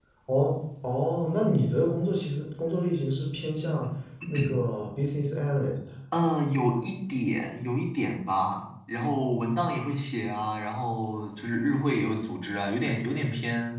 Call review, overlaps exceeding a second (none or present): none